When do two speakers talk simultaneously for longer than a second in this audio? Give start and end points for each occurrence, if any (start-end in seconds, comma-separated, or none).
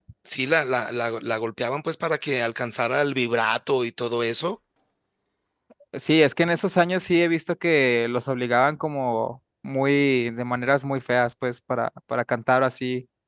none